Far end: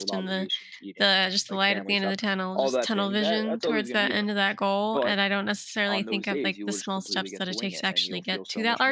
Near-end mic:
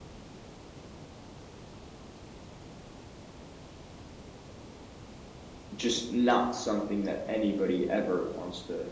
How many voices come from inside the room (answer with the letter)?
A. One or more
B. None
A